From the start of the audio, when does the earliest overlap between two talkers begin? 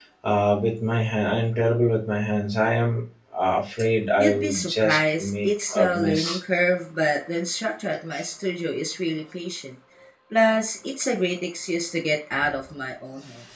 4.2 s

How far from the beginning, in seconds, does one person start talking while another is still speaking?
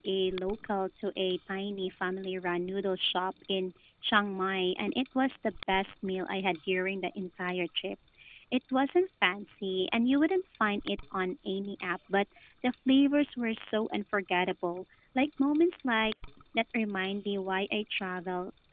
none

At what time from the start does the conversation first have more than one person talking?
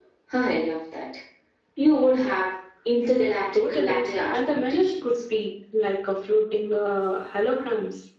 3.5 s

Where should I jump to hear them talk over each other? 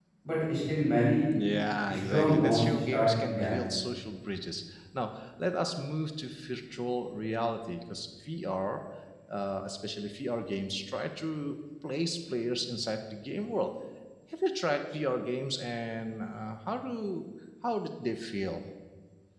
1.9 s

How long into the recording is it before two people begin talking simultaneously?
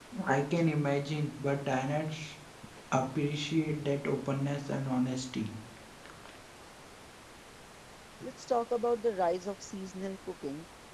none

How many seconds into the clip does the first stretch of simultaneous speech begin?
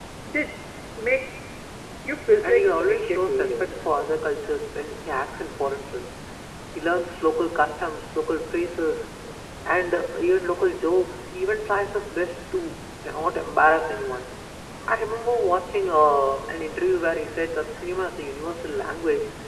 2.4 s

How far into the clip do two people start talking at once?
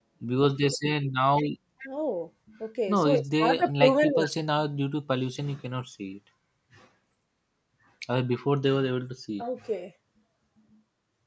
2.9 s

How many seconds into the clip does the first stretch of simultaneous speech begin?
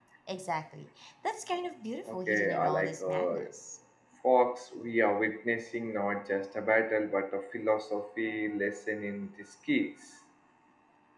2.1 s

